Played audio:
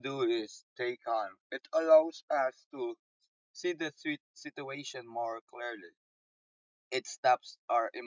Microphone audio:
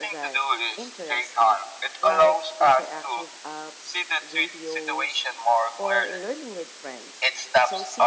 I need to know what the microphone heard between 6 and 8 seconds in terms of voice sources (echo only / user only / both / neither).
both